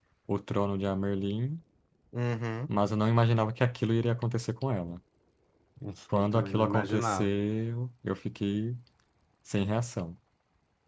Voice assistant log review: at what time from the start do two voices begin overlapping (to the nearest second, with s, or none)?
6 s